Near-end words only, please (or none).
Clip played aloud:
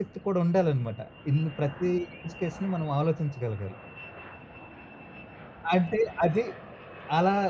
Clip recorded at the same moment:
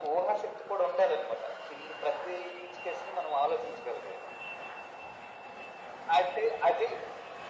none